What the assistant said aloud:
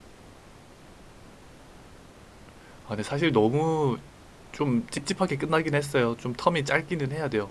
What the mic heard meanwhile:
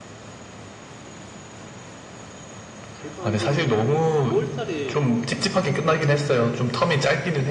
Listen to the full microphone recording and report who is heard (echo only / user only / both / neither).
both